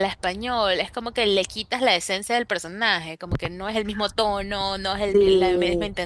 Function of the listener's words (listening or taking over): listening